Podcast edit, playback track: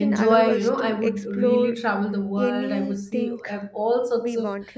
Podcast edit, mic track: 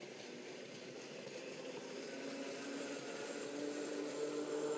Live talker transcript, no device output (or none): none